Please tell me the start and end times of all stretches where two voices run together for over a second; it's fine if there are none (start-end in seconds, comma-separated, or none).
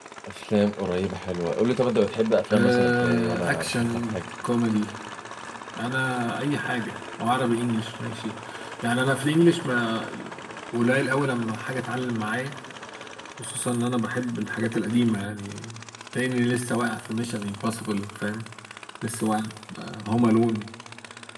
2.5-4.2